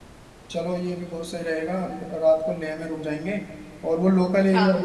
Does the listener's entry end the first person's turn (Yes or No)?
No